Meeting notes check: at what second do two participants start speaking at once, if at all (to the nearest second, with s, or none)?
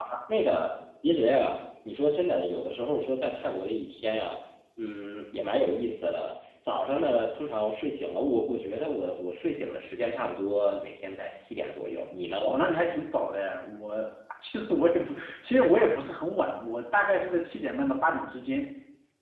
none